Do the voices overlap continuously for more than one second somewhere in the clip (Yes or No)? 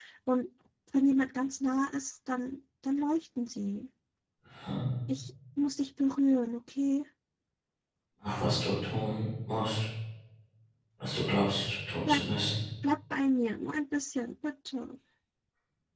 No